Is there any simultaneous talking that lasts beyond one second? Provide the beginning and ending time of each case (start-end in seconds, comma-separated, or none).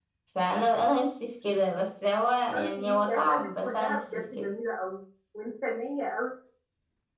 2.6-4.5